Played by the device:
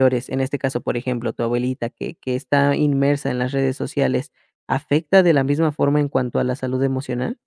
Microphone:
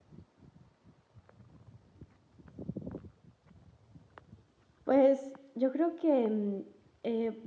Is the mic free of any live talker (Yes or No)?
No